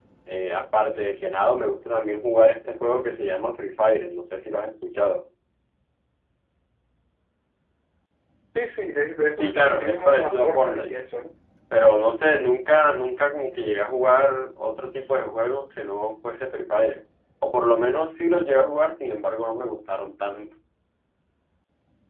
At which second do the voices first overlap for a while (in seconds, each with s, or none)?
9.4 s